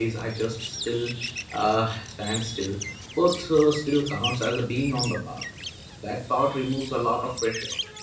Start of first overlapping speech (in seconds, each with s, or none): none